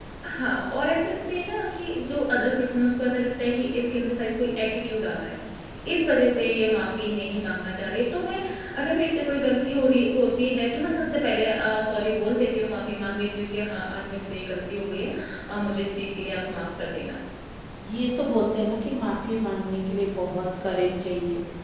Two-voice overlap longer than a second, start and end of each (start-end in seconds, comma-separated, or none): none